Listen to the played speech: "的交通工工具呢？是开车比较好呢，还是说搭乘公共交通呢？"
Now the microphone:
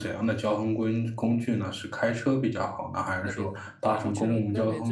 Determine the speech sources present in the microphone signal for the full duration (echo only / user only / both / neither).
both